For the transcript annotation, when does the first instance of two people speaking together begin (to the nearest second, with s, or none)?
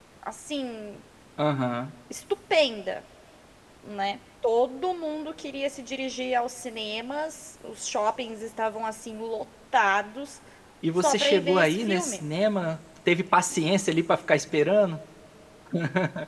11 s